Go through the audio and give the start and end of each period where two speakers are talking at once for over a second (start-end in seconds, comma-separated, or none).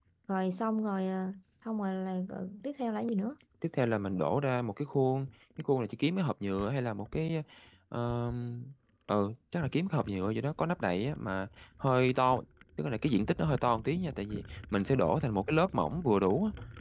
none